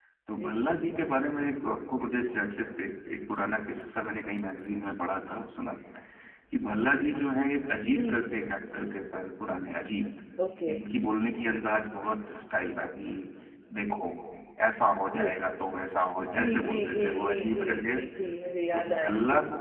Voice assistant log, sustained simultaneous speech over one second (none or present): present